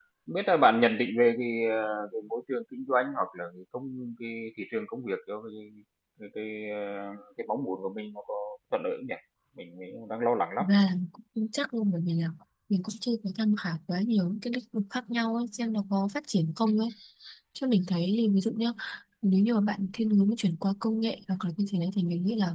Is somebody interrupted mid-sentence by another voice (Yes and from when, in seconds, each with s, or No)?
No